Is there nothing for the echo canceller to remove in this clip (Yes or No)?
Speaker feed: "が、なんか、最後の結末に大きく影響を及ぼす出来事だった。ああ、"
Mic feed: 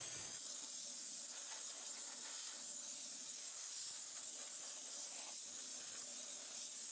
Yes